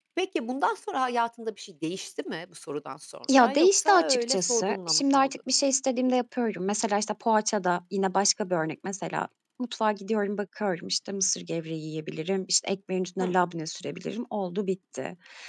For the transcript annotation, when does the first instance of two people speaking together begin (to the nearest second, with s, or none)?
3 s